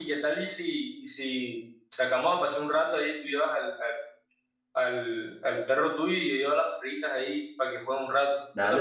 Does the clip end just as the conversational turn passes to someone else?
Yes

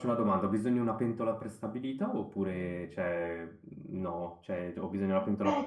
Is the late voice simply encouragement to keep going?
No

